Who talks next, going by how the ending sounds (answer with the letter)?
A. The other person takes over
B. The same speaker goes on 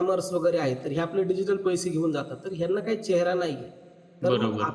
B